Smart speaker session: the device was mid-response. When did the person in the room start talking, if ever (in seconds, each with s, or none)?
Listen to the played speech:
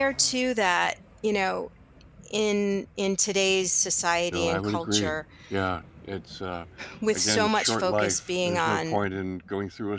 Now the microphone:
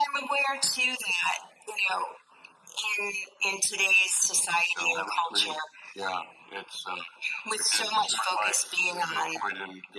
none